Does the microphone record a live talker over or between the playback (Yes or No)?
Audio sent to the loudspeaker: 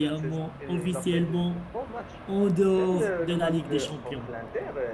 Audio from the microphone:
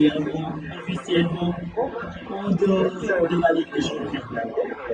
No